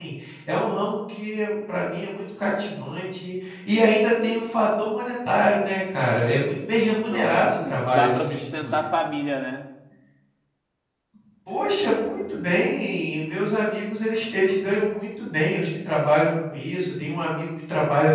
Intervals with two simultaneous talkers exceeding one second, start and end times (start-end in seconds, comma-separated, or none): 7.1-8.8